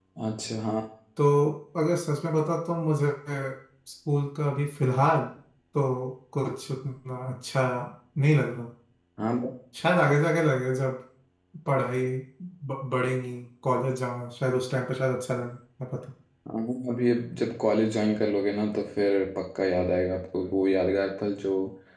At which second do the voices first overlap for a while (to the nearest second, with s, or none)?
none